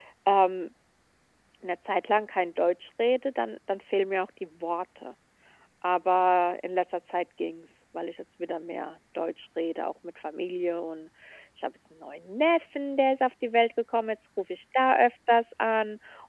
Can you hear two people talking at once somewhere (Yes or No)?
No